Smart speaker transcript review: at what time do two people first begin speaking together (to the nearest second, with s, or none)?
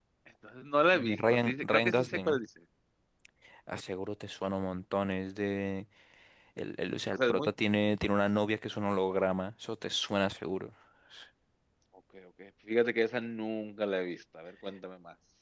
1 s